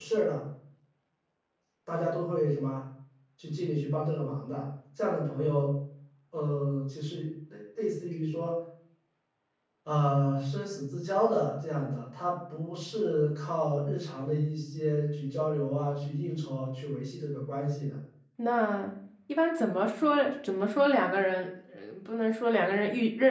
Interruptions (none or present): none